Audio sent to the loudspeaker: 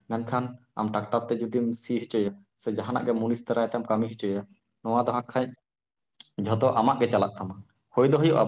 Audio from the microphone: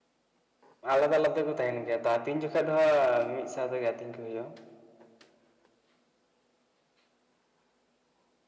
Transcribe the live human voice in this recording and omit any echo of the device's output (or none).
ᱟᱞᱟᱫᱟ-ᱟᱞᱟᱫᱟ ᱛᱮᱠᱚ ᱛᱟᱦᱮᱱ ᱜᱮᱭᱟ ᱛᱚ ᱟᱹᱛᱤᱧ ᱡᱚᱠᱷᱟ ᱫᱚ ᱦᱟᱸᱜ ᱢᱤᱫ ᱥᱟᱶ ᱛᱮᱜᱮ ᱟᱹᱛᱤᱧ ᱠᱚ ᱦᱩᱭᱩᱜᱼᱟ᱾